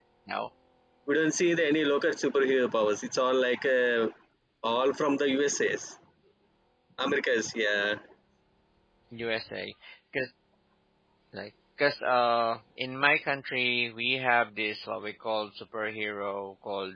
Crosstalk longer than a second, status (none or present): none